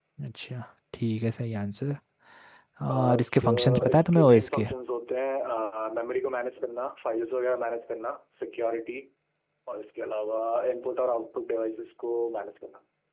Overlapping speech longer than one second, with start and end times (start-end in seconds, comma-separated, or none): 2.9-4.7